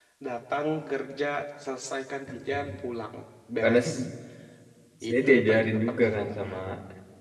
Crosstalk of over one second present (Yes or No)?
Yes